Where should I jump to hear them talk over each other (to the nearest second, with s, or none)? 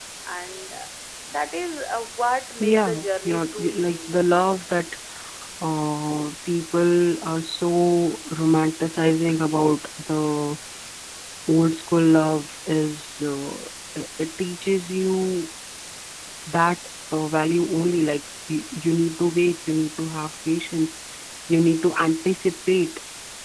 3 s